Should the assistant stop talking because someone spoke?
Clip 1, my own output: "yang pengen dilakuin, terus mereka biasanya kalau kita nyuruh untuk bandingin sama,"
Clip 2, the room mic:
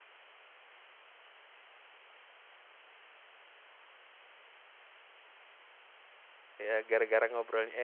Yes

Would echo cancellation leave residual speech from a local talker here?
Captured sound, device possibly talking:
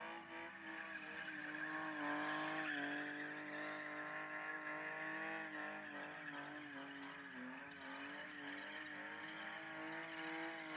No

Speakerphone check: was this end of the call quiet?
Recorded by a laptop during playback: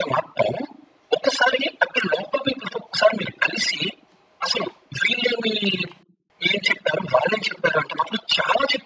Yes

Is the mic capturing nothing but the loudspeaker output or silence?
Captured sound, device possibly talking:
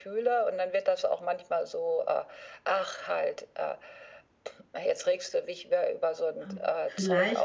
No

